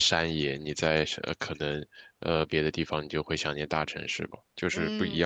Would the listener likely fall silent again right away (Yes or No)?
No